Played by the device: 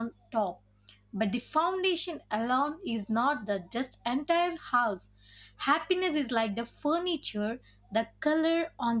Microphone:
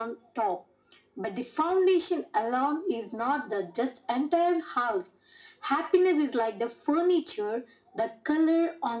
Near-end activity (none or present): none